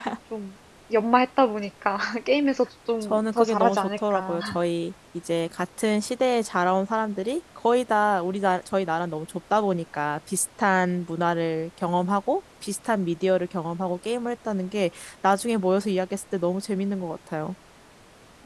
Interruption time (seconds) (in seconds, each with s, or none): 3.0 s